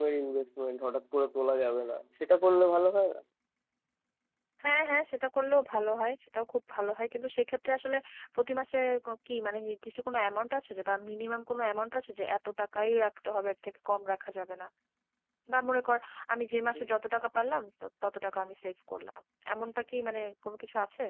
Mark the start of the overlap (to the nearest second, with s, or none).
none